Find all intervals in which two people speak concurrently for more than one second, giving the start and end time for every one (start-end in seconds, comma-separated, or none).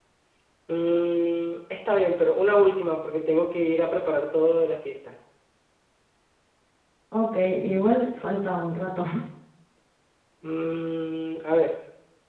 none